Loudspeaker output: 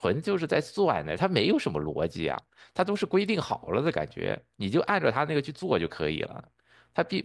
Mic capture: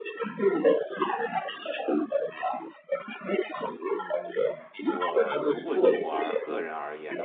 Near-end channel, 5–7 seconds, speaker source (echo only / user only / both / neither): both